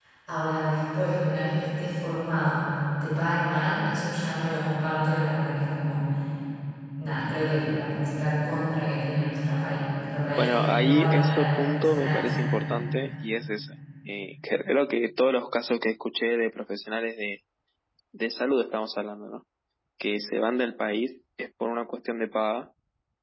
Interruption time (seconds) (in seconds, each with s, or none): 10.4 s